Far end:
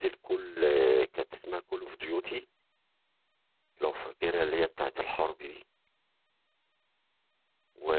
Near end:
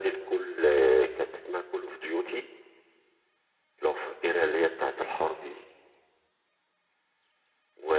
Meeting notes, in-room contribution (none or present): none